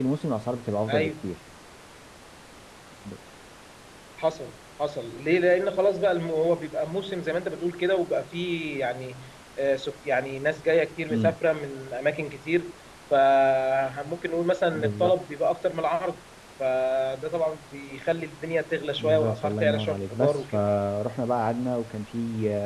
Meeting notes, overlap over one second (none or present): present